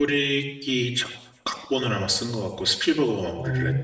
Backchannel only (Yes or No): No